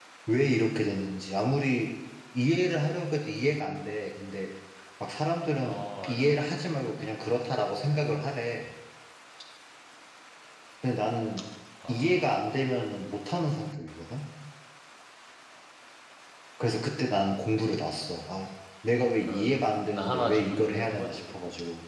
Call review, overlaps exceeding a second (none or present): present